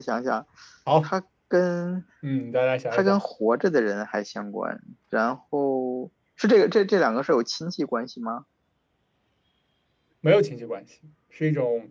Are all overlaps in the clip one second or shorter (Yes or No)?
Yes